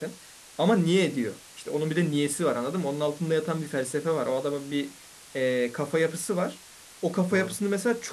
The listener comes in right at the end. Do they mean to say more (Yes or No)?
No